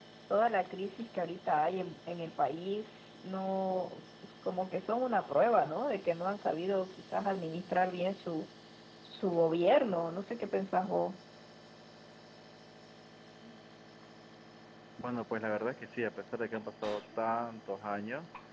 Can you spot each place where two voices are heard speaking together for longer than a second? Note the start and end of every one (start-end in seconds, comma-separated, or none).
none